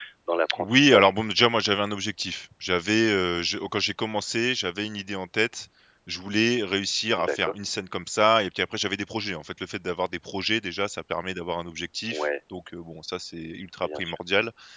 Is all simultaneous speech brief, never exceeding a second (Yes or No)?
Yes